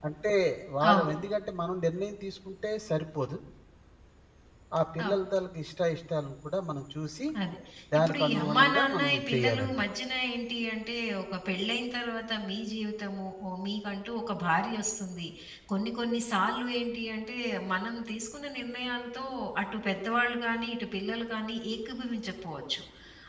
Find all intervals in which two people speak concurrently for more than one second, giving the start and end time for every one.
8.0-9.8

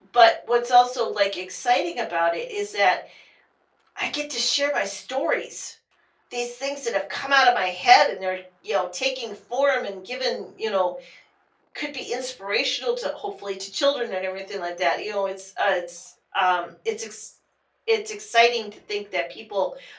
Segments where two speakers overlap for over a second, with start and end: none

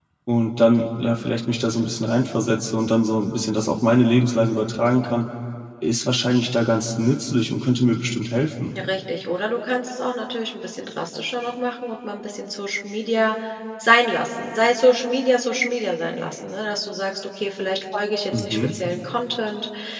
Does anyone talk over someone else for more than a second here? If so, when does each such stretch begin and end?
none

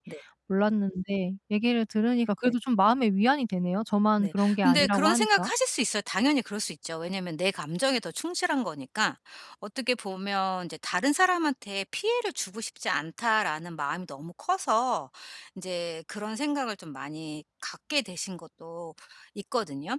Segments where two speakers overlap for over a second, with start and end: 4.2-5.5

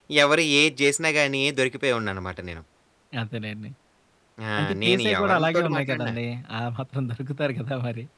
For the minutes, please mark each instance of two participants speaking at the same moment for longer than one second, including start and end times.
4.6-6.1

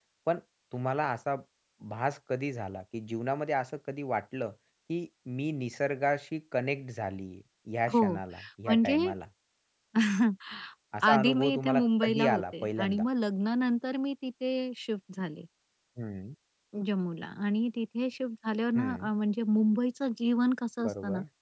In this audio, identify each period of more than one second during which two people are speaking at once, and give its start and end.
11.1-13.0

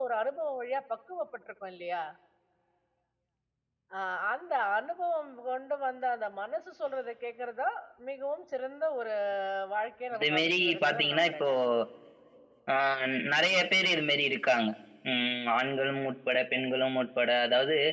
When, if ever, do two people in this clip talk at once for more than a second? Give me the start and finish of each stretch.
10.2-11.5

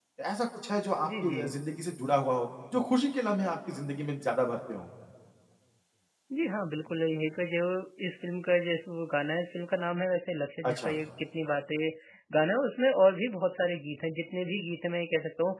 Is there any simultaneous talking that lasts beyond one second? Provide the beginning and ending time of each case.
none

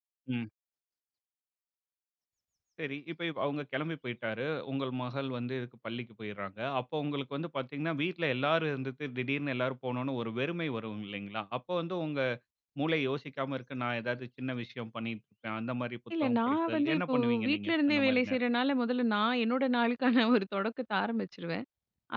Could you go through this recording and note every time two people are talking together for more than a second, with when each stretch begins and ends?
16.2-18.4

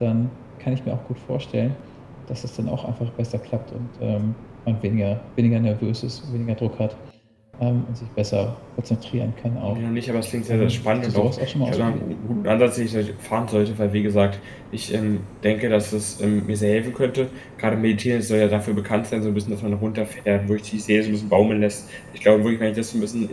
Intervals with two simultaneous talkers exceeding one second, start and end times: 10.5-12.0

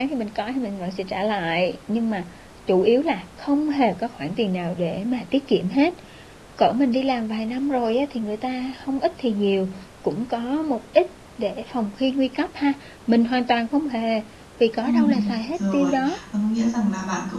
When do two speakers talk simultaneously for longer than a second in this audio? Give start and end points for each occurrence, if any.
14.8-16.2

